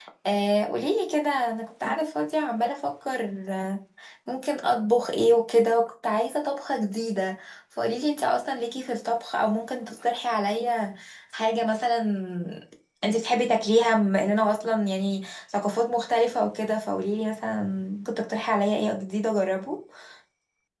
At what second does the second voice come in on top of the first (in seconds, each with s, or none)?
none